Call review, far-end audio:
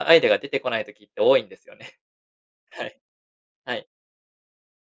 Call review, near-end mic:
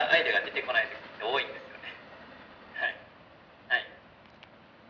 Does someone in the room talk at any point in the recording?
No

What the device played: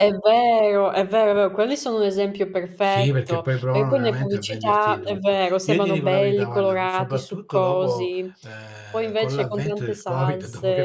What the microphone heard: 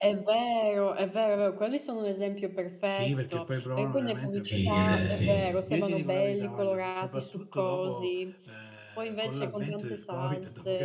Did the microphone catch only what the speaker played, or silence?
No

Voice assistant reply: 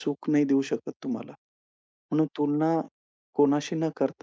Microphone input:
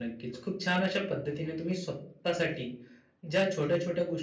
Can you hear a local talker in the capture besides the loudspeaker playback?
Yes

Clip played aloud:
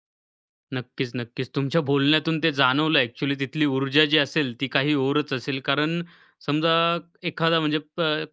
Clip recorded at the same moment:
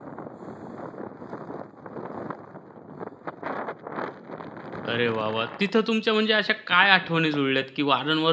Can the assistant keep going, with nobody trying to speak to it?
No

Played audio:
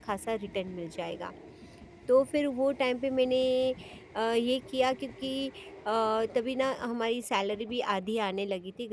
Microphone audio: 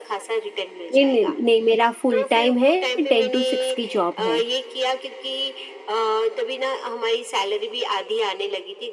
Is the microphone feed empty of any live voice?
No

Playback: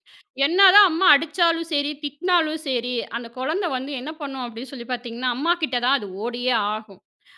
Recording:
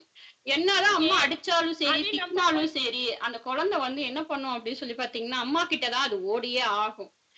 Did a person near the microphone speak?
Yes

